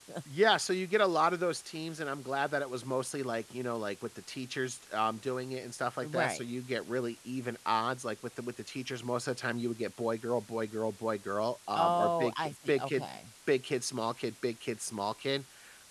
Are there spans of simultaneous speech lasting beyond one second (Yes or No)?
Yes